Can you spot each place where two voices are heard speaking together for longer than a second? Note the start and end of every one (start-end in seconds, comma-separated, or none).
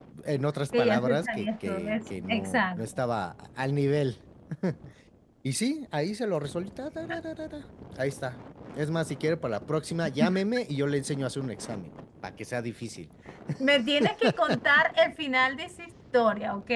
0.8-2.9